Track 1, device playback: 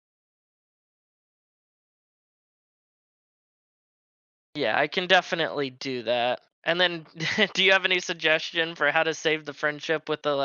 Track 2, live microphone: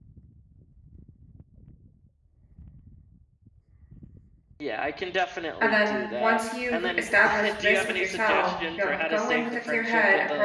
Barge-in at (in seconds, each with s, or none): 5.6 s